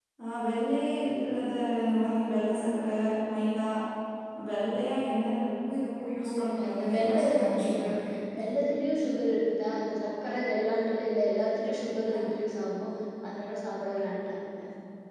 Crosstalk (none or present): present